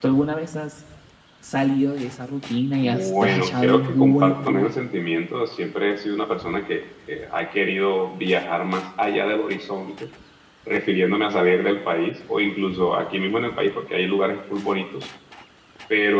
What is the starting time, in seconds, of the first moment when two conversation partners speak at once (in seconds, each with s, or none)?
2.8 s